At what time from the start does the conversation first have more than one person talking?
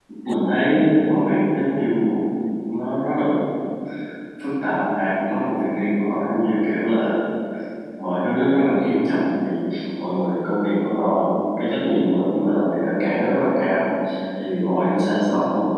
none

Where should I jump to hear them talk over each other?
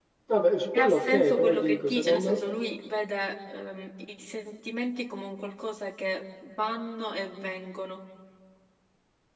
1 s

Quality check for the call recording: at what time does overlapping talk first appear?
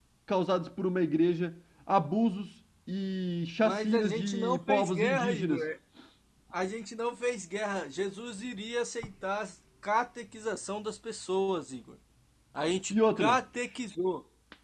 4 s

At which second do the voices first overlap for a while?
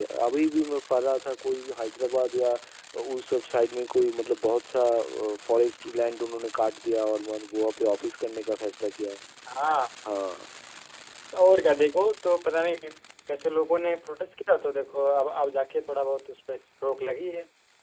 none

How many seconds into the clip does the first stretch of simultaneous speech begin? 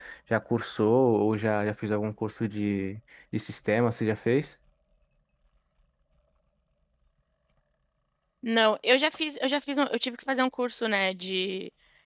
none

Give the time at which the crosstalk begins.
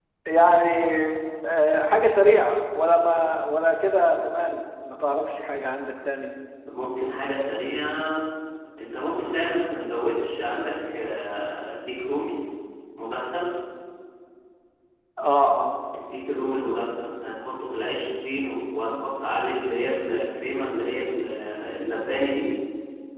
none

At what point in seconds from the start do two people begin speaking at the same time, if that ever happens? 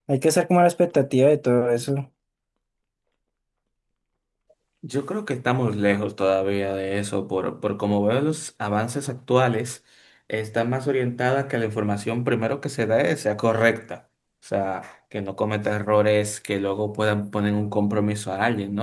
none

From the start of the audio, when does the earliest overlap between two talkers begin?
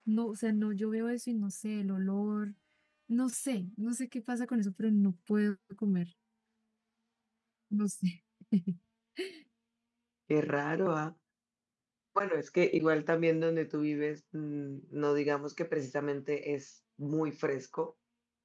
none

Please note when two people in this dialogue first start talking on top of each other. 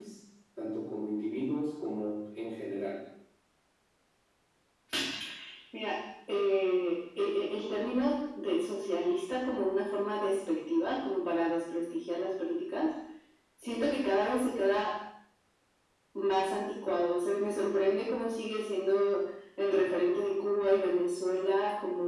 none

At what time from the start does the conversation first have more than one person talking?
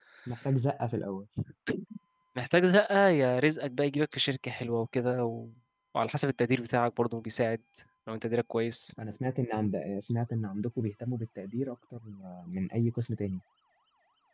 none

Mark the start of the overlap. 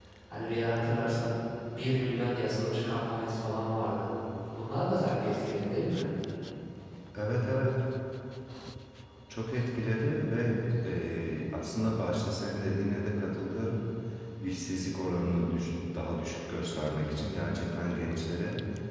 none

